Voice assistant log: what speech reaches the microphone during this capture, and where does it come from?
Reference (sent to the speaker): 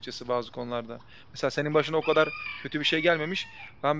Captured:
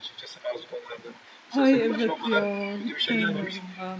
both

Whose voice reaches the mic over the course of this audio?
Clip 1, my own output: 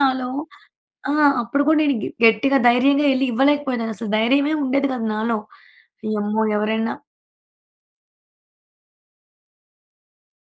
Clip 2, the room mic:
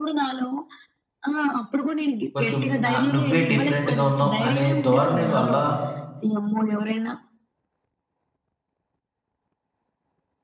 both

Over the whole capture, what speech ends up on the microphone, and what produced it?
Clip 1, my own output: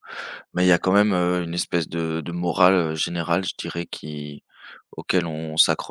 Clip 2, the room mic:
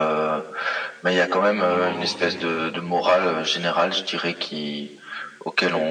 both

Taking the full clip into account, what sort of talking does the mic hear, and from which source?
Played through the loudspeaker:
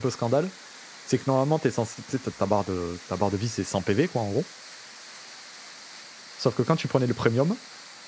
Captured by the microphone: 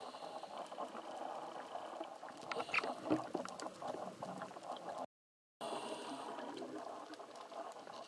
neither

